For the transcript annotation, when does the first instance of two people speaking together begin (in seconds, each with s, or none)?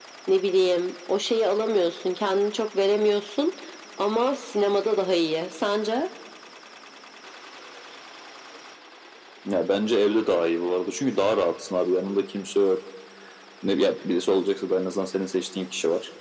none